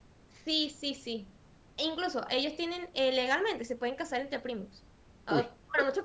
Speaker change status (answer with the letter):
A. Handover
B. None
B